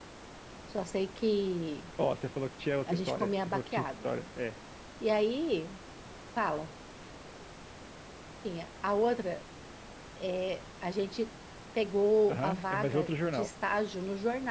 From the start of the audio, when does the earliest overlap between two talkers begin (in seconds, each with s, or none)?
2.9 s